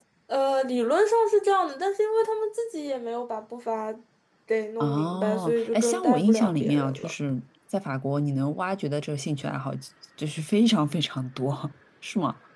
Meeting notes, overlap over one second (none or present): present